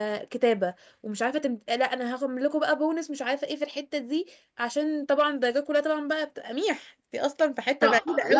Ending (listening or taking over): taking over